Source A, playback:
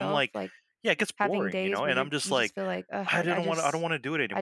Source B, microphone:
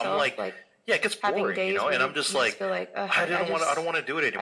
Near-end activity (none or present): none